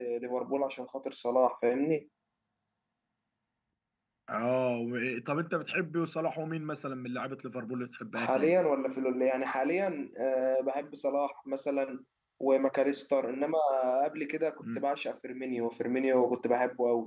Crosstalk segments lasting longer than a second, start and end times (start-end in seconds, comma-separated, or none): none